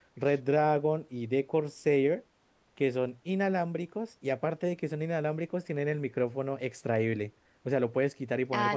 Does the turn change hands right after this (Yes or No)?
Yes